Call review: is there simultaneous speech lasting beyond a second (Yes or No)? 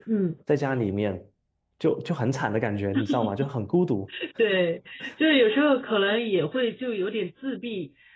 No